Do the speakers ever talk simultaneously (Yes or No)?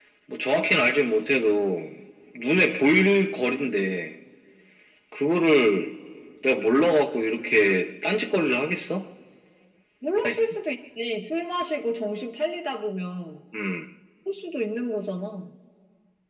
No